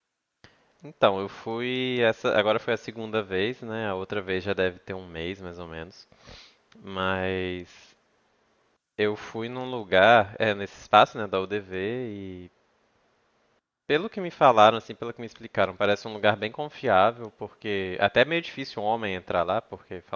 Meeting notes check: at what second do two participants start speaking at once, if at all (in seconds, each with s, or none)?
none